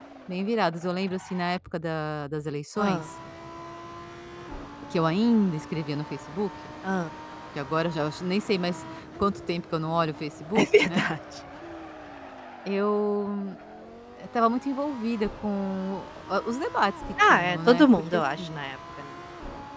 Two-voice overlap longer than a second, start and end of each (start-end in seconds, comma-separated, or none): 17.2-18.6